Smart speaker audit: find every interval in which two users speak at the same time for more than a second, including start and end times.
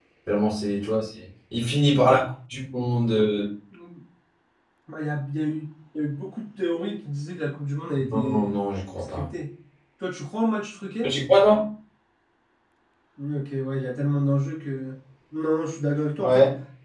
none

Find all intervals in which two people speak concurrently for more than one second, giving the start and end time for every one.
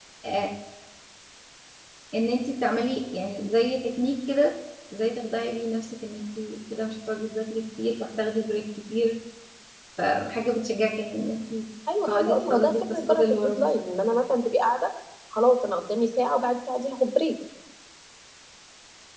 12.1-13.6

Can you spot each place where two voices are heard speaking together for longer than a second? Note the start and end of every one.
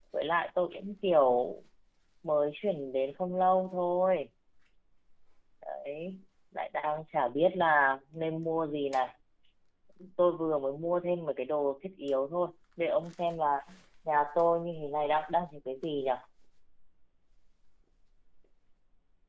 none

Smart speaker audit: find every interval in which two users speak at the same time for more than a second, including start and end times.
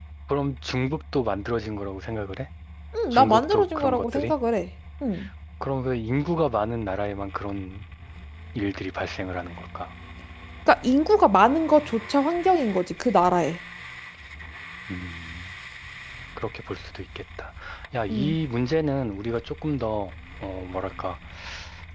3.1-4.3

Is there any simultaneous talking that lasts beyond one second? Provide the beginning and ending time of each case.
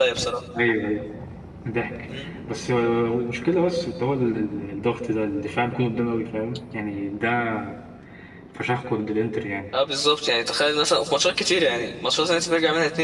none

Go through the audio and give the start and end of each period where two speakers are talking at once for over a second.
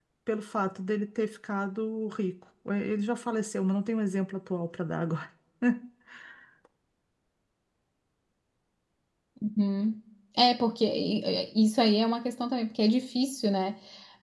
none

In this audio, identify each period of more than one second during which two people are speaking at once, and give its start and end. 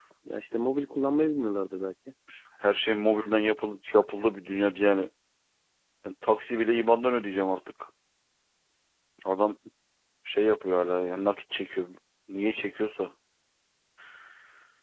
none

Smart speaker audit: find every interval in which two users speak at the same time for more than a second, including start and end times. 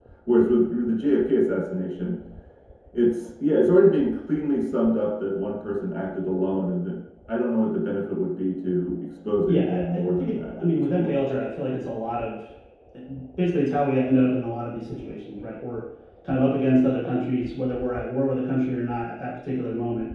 9.5-11.2

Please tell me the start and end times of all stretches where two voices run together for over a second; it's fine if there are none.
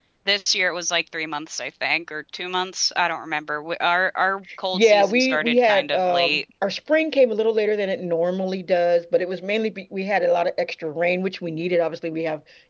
4.7-6.4

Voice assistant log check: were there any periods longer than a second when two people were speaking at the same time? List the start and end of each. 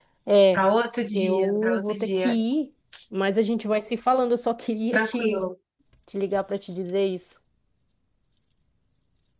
1.1-2.4

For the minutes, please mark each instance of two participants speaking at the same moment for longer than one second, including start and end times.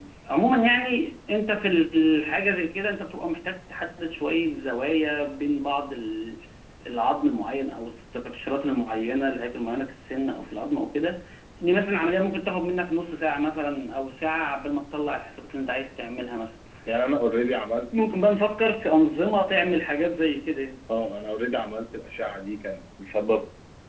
none

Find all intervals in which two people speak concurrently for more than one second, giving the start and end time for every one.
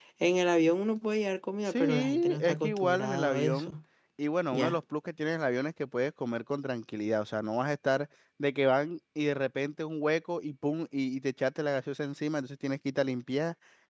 1.7-3.7

